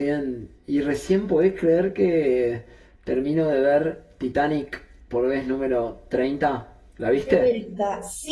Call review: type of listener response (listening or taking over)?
taking over